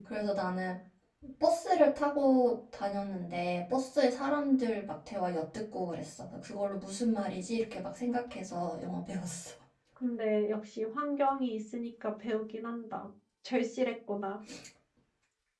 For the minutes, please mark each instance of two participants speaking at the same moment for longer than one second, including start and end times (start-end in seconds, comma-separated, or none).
none